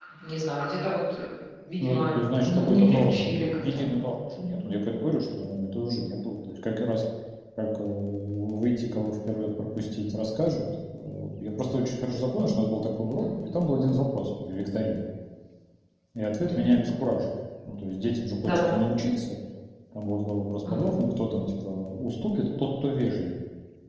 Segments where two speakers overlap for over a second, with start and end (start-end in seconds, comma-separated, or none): 1.8-4.0